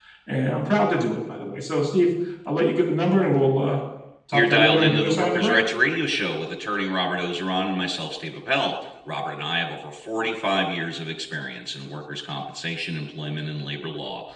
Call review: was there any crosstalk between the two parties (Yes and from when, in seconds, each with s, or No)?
Yes, from 4.3 s